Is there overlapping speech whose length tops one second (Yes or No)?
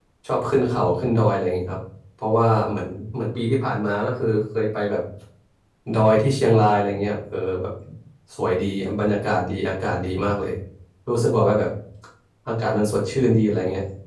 No